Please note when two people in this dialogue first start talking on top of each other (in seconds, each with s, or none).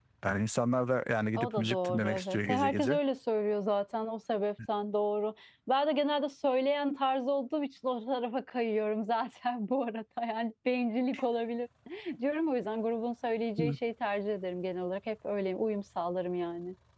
1.4 s